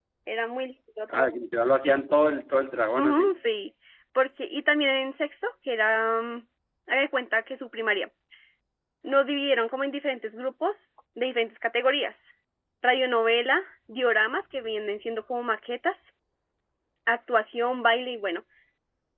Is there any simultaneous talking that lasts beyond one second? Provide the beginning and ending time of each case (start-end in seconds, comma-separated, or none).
none